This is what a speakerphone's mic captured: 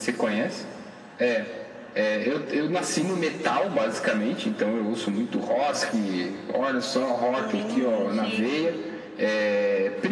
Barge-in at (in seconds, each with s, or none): 7.4 s